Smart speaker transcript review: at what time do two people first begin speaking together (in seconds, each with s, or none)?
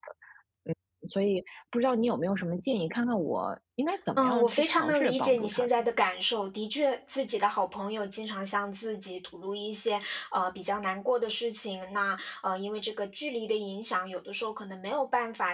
4.2 s